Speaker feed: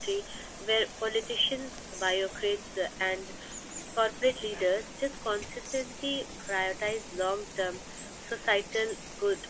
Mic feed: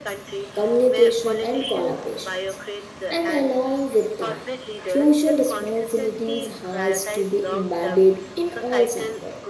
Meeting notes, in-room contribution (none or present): present